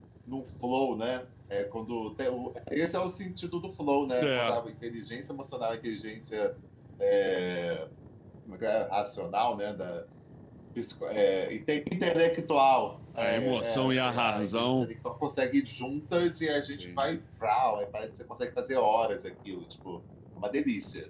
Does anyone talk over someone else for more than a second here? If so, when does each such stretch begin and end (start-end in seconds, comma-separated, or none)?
13.2-14.9